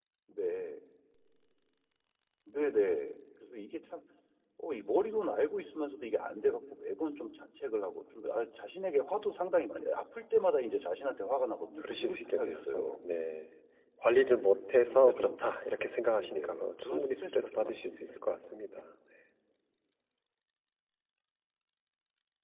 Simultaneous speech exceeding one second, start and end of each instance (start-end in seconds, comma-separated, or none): 11.8-13.0, 16.2-18.0